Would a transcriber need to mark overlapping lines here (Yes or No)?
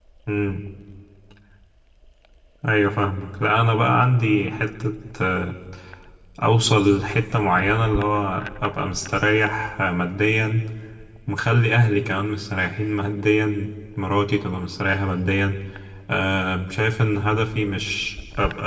No